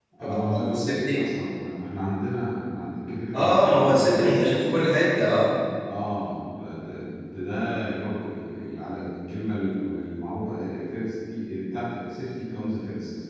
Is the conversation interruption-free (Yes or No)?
No